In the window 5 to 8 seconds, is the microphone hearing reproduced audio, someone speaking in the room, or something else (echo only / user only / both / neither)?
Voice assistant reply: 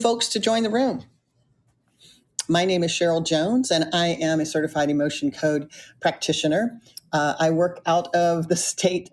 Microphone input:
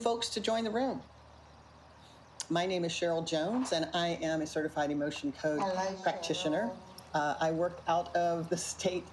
both